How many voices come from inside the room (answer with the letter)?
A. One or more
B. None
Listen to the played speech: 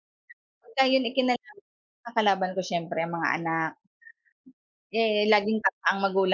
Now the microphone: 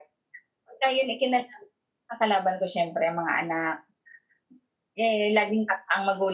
B